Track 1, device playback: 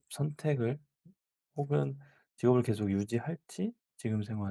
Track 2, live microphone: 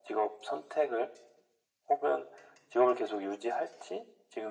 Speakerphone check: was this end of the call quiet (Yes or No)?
Yes